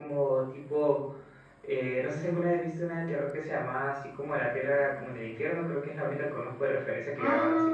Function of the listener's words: taking over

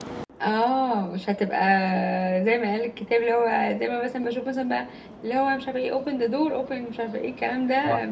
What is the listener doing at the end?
taking over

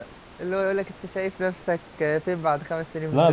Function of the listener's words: taking over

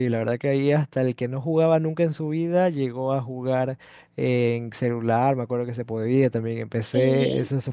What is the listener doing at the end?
listening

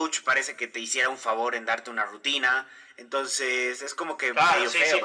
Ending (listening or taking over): taking over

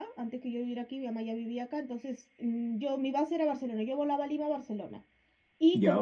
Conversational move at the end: listening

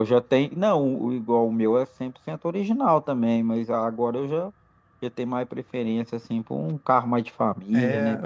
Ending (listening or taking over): taking over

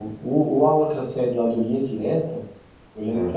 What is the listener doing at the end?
listening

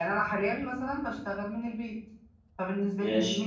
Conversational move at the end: listening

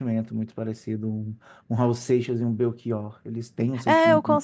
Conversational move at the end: taking over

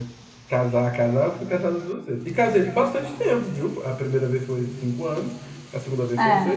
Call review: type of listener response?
listening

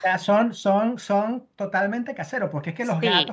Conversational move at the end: listening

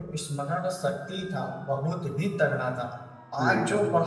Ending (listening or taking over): listening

